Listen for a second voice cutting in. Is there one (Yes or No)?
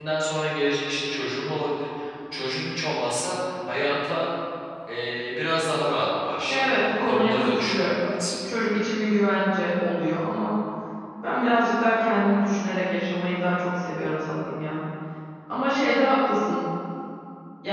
Yes